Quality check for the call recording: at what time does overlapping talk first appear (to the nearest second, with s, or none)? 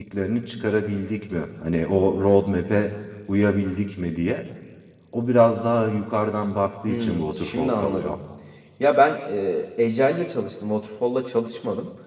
7 s